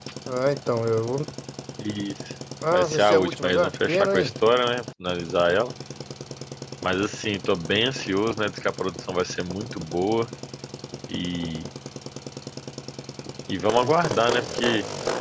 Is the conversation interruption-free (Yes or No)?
No